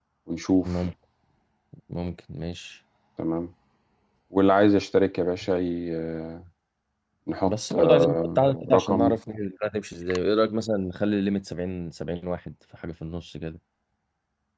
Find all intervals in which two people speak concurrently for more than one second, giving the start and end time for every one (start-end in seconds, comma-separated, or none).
7.5-9.2